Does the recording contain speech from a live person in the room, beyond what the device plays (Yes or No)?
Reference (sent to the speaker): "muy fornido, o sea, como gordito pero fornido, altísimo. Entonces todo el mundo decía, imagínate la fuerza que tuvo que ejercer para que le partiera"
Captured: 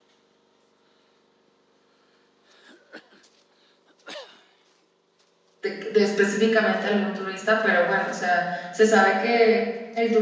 Yes